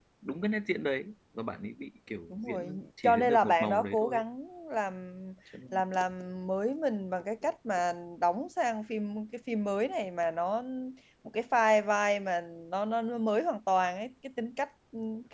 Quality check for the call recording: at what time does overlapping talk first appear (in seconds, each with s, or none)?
2.3 s